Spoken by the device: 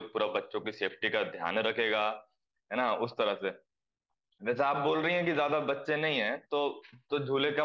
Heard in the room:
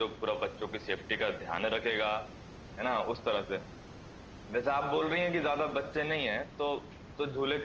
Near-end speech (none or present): none